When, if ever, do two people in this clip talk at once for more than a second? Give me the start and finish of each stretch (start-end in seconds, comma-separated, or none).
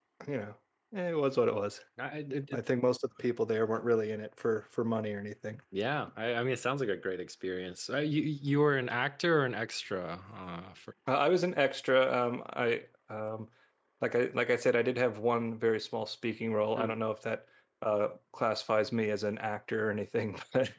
none